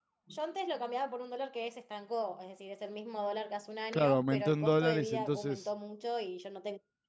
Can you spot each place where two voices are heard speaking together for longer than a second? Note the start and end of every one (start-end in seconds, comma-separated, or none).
3.9-5.7